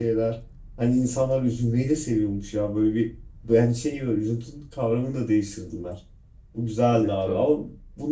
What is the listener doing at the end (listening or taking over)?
listening